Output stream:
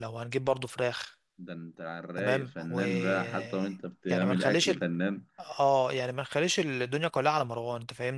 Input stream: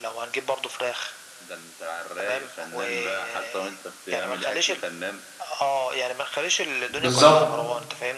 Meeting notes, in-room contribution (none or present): present